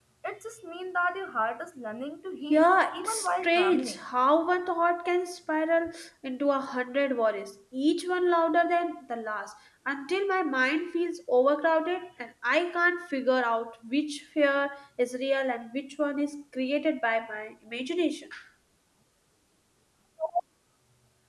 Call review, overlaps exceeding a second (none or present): present